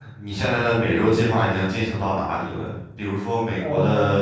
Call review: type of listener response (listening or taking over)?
listening